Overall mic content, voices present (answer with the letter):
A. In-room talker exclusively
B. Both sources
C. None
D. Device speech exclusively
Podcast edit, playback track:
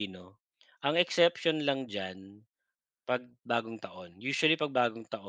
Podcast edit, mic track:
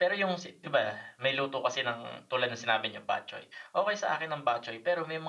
A